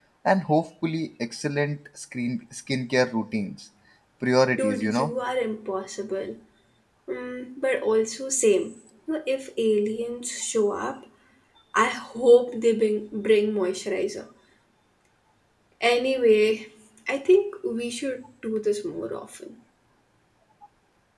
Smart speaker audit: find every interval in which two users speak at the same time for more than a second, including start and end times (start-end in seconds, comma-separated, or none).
none